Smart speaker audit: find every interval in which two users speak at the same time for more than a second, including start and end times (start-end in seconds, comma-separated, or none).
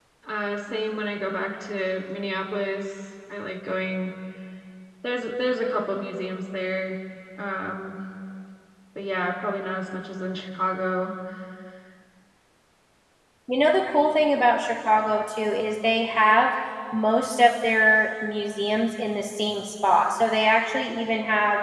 none